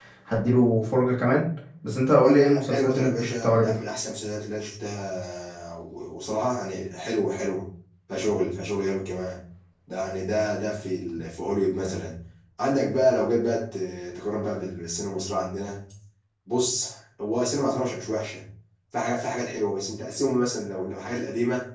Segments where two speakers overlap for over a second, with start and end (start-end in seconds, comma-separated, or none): 2.2-3.8